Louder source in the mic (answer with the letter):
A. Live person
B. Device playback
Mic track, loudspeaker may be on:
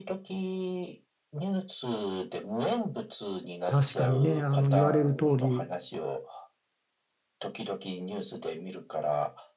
A